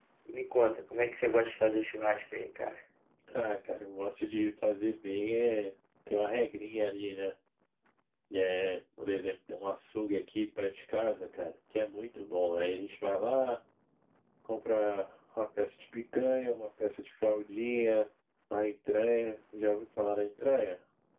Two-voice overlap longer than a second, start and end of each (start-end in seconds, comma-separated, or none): none